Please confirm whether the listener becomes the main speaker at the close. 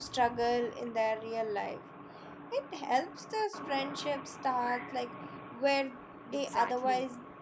Yes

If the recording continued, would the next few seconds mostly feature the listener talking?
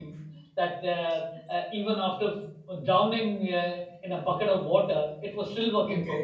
Yes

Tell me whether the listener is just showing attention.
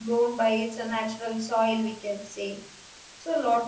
Yes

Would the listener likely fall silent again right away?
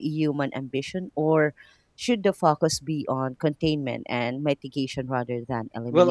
No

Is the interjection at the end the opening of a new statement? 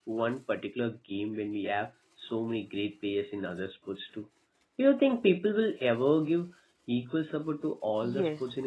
Yes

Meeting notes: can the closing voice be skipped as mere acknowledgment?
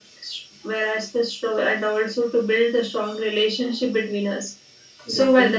Yes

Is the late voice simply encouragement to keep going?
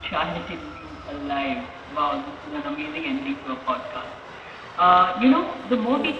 Yes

